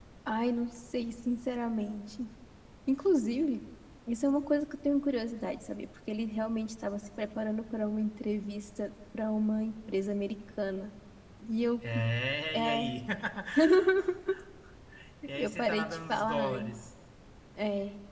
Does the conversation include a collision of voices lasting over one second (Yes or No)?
Yes